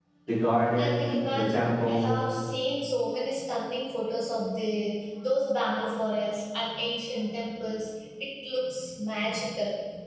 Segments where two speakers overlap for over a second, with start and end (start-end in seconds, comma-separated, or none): 0.8-2.1